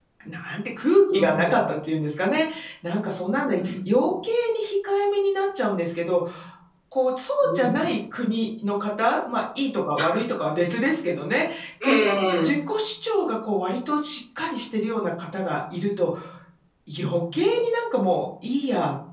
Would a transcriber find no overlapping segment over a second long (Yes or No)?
Yes